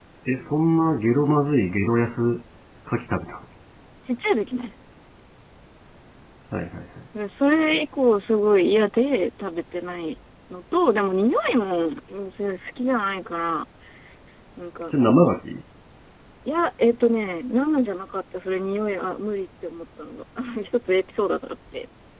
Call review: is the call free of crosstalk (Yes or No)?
Yes